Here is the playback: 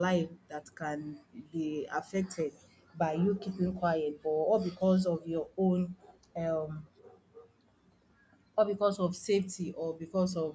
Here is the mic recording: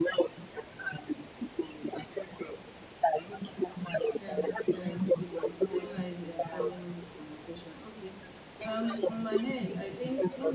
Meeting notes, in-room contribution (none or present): present